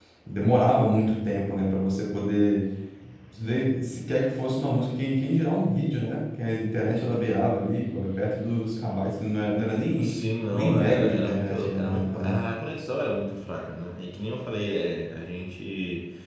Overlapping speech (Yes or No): Yes